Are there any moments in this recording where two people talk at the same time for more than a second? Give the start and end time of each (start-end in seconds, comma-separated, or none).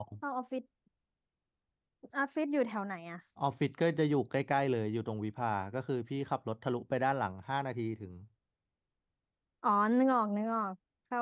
none